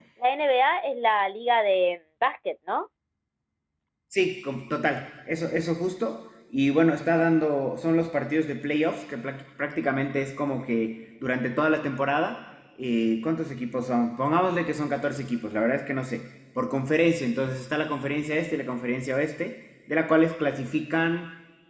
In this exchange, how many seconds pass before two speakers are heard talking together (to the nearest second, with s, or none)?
none